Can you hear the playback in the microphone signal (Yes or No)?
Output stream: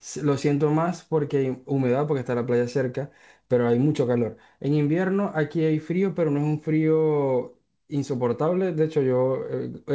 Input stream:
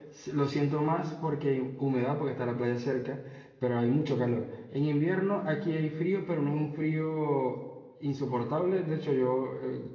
Yes